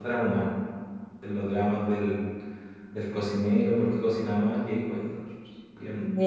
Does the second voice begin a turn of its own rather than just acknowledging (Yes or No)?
Yes